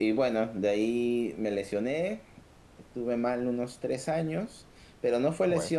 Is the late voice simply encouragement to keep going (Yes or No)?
Yes